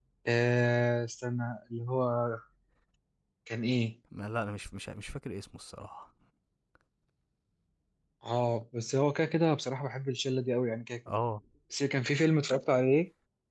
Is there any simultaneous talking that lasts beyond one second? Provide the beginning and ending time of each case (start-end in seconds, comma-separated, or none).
none